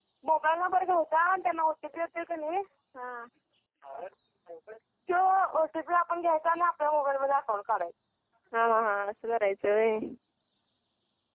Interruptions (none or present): none